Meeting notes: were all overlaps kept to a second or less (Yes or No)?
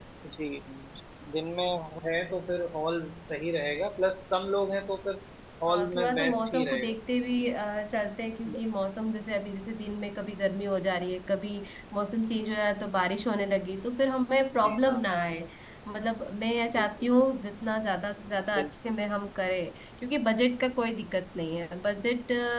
No